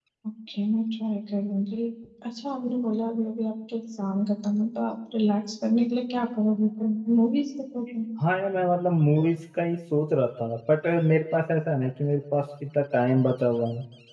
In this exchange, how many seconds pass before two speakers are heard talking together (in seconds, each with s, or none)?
none